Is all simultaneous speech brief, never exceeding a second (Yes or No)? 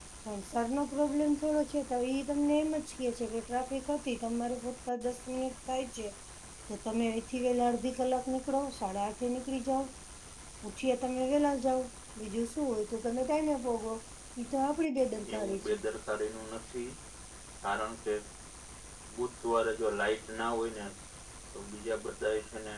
Yes